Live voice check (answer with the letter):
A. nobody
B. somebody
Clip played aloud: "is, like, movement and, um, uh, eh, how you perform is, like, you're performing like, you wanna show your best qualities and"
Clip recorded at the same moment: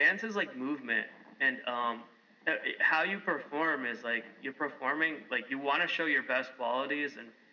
A